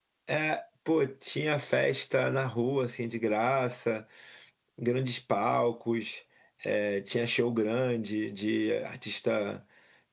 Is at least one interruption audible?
No

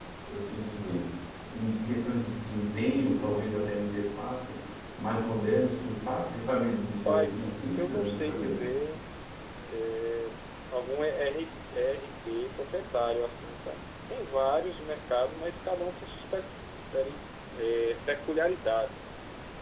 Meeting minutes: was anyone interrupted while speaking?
Yes, from 7.0 s

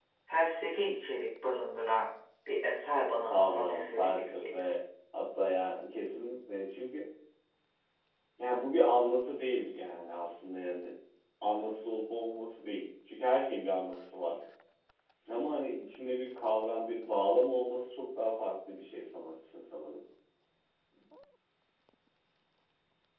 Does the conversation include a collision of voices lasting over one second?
Yes, from 3.3 s

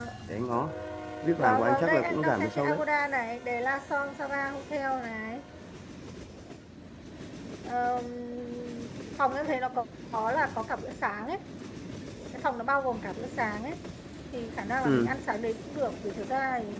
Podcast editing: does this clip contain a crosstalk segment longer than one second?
Yes, from 1.4 s

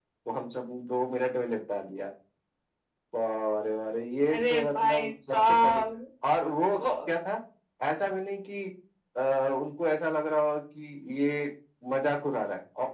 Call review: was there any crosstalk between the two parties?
Yes, from 4.3 s

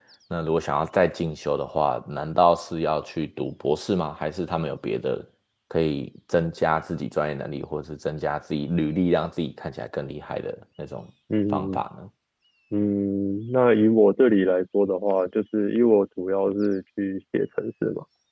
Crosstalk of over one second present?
No

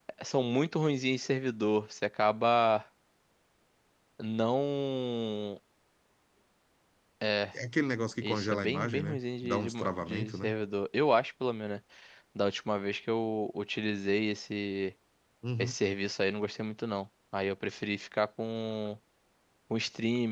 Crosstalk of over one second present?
Yes, from 8.2 s

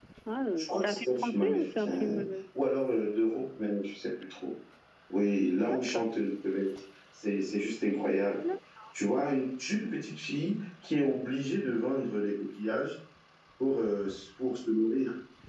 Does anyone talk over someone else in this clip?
Yes, from 0.6 s

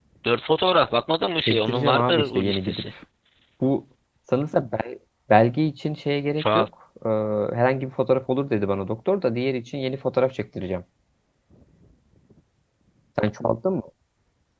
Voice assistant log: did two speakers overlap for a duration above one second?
Yes, from 1.5 s

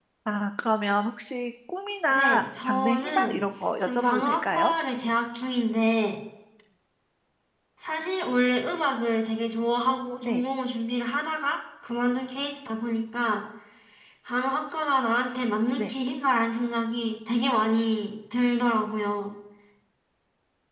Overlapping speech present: Yes, from 2.1 s

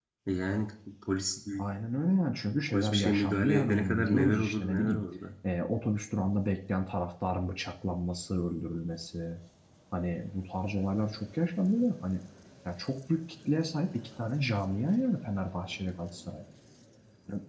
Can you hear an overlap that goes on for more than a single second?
Yes, from 2.7 s

